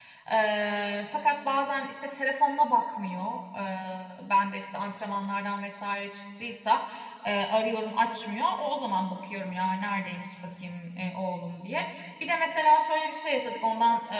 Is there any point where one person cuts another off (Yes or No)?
No